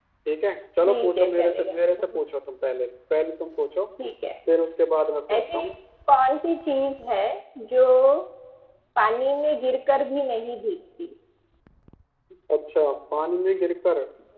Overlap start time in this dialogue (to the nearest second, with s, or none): 1 s